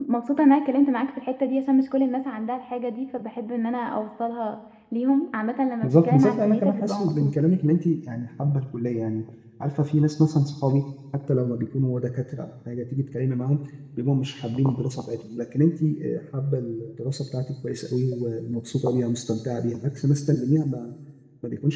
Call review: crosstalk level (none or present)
present